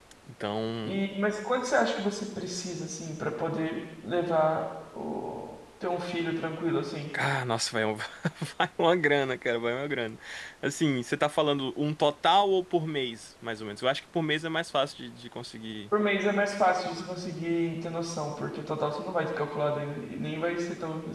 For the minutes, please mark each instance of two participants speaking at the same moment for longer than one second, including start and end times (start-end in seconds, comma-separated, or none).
none